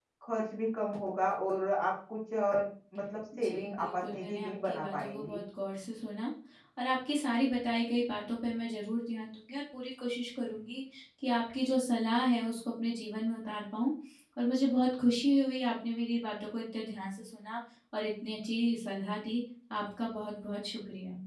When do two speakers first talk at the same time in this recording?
3.3 s

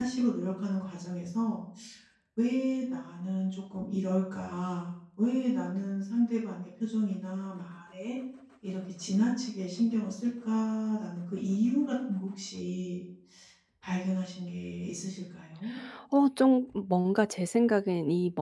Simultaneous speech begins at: none

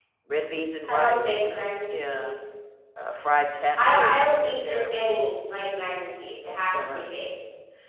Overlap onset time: 0.9 s

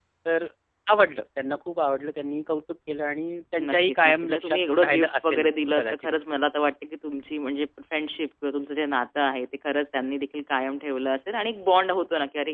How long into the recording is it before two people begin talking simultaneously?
3.6 s

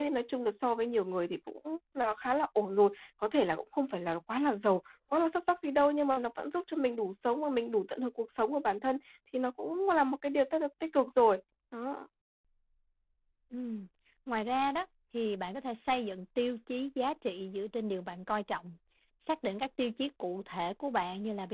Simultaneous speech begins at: none

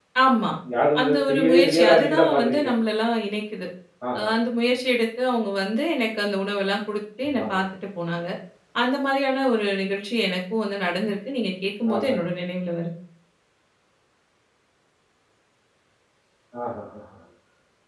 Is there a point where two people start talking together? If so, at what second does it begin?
1.0 s

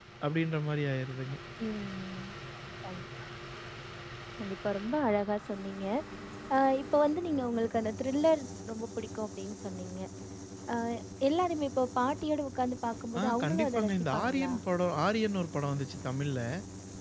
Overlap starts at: 13.2 s

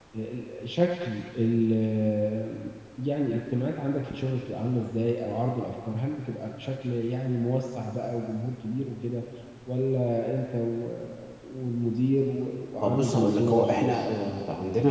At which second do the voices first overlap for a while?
12.8 s

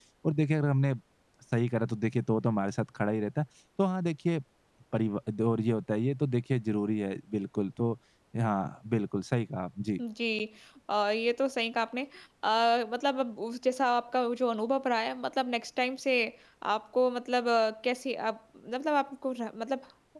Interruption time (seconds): none

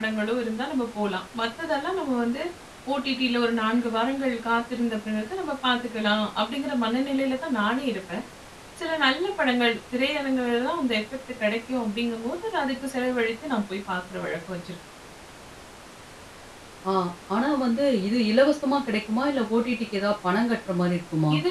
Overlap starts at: none

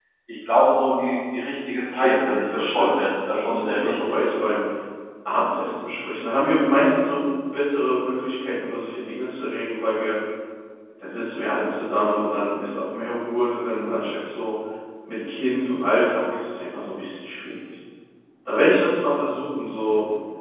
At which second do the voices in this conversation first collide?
1.8 s

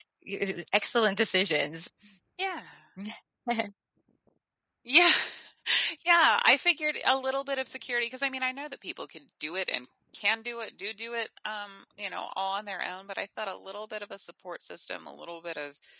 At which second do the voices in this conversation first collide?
none

